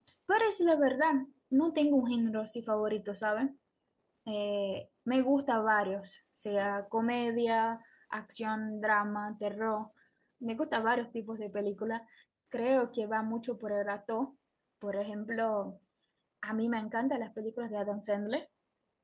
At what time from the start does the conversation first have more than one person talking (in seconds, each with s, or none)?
none